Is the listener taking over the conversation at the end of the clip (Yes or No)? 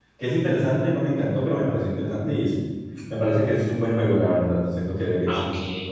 Yes